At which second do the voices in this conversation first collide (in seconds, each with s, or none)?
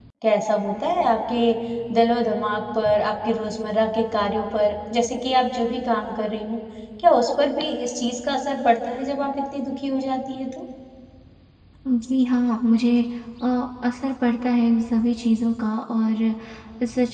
none